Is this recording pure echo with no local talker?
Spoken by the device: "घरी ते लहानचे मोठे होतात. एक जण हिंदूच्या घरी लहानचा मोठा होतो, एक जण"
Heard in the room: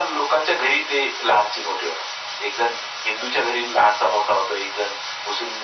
Yes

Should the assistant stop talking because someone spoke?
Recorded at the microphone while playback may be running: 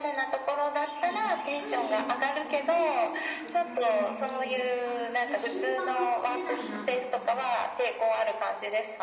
Yes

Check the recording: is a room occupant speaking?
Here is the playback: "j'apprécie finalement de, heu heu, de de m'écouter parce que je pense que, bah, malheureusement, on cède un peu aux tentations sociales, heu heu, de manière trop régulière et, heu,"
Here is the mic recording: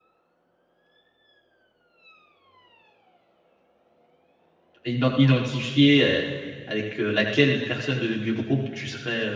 Yes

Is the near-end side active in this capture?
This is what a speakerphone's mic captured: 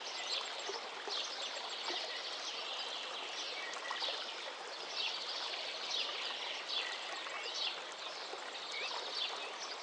No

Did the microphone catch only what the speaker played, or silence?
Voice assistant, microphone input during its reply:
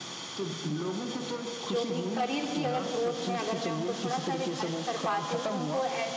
No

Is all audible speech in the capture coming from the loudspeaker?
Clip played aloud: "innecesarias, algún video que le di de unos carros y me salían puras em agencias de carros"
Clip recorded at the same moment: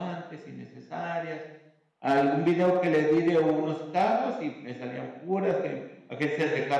Yes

